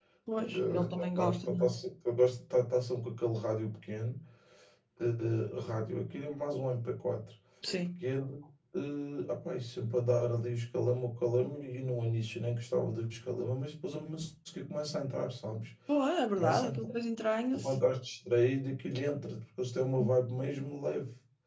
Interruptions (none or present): present